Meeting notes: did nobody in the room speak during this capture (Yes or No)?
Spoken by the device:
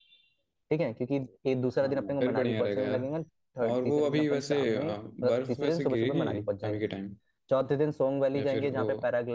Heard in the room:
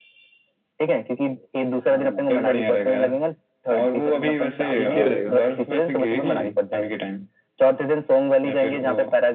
No